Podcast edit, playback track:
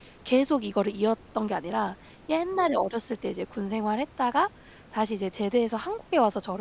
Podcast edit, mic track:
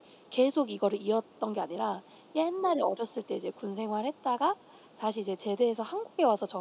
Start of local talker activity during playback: none

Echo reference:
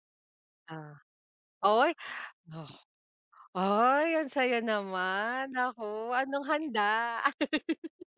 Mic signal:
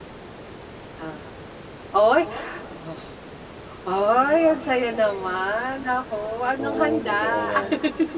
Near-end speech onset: 7 s

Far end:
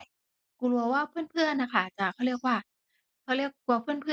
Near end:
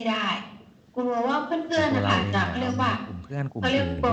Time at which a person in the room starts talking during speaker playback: 2 s

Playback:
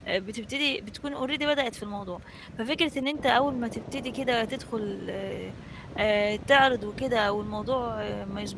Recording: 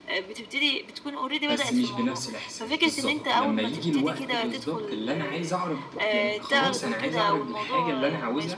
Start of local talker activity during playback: 1 s

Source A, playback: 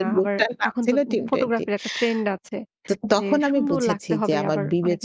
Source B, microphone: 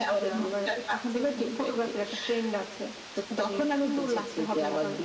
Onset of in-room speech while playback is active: none

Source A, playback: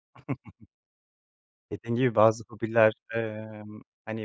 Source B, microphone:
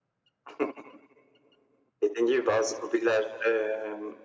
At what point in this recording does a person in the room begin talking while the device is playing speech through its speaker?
none

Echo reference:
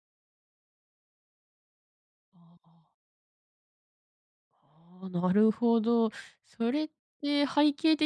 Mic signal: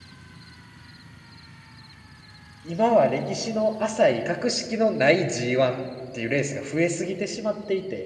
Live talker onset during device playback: 3 s

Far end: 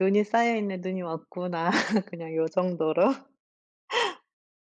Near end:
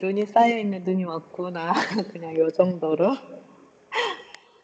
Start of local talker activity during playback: none

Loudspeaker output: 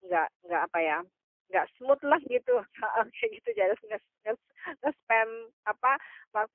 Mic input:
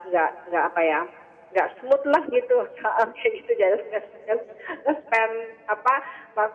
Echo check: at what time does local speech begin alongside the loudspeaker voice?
none

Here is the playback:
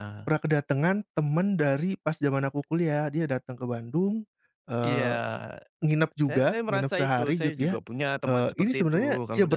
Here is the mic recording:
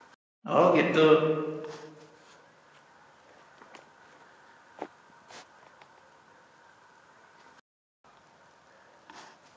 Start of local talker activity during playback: 0 s

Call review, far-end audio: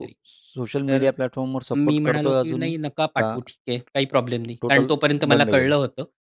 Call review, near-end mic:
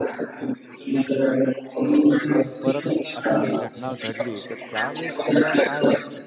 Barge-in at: 3 s

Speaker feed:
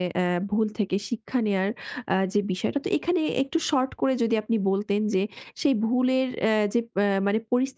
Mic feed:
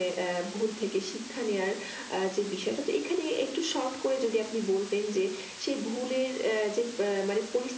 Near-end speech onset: none

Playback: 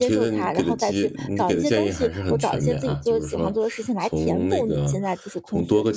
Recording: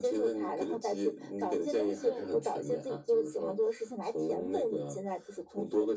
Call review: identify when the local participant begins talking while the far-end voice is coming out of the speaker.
2 s

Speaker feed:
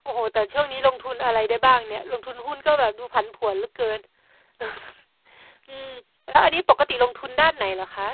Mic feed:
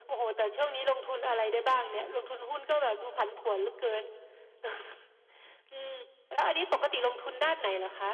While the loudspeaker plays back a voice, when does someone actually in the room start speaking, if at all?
none

